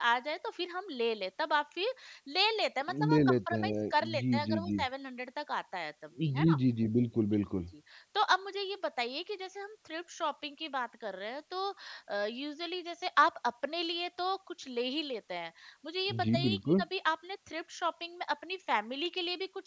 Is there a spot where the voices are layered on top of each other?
Yes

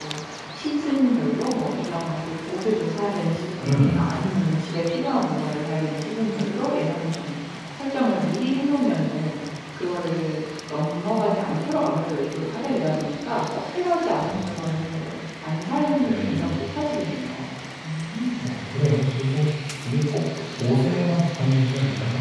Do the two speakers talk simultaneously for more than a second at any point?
No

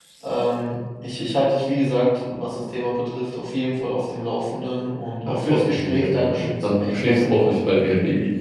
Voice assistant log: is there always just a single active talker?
No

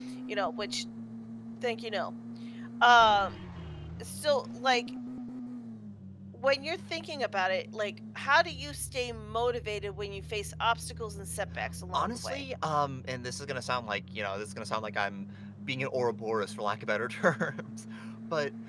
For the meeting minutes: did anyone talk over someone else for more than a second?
No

